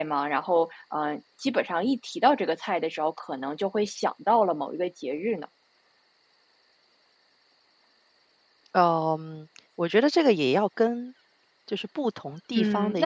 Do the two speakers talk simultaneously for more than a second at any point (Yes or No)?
No